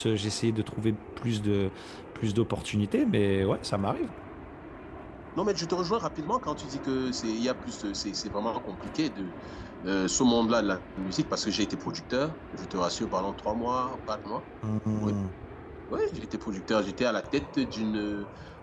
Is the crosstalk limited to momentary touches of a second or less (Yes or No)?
Yes